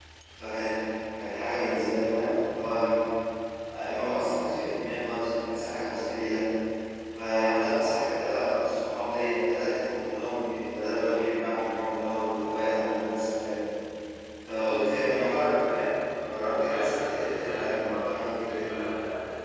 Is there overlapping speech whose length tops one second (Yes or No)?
Yes